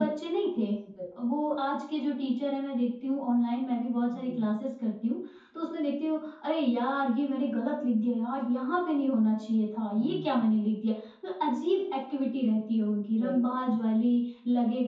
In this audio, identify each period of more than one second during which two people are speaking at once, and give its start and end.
none

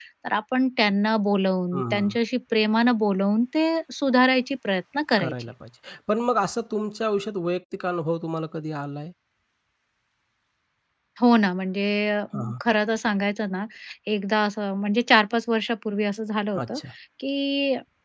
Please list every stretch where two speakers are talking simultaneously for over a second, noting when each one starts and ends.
none

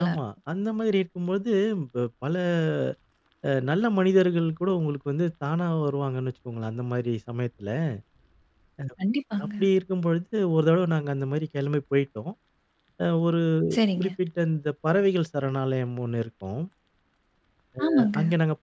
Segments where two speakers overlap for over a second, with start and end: none

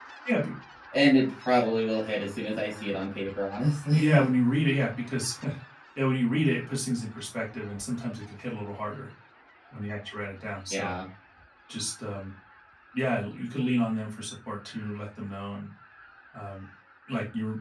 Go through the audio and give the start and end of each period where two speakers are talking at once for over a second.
none

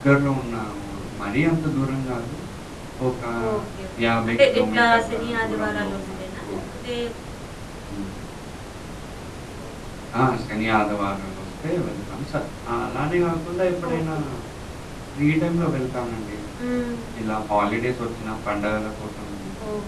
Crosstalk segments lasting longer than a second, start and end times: 4.3-6.0

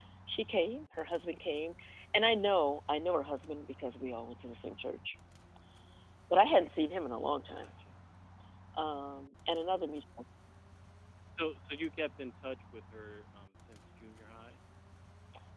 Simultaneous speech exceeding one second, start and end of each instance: none

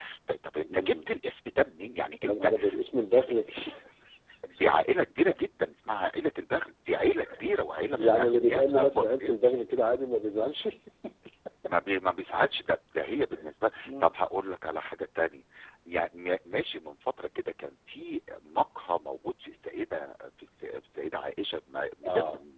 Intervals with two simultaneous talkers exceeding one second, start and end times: 8.1-9.4

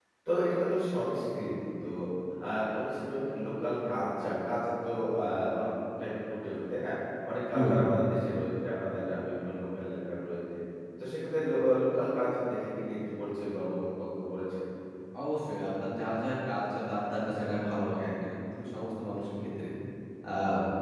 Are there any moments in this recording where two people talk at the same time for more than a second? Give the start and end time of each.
none

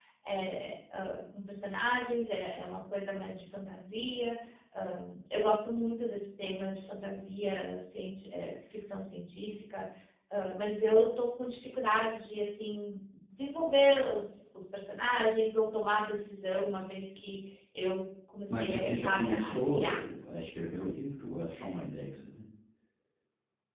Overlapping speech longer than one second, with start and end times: 18.6-20.0

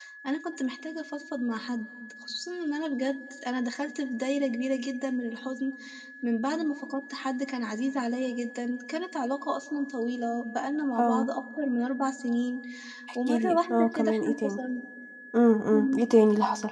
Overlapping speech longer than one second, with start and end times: 13.3-14.6

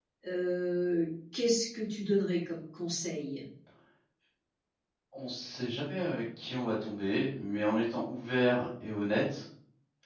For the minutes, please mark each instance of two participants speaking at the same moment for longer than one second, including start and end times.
none

